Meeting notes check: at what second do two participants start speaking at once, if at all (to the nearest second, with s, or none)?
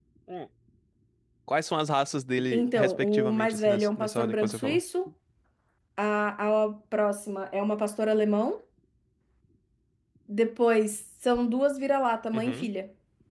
3 s